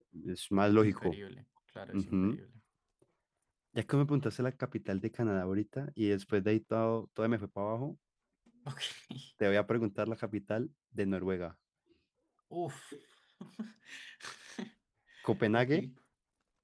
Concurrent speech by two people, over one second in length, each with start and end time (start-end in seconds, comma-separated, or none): none